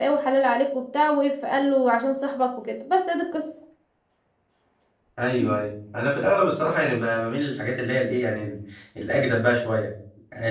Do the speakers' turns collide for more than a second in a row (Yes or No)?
No